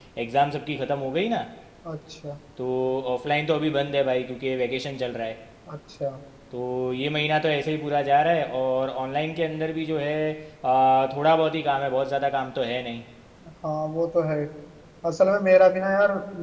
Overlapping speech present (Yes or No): No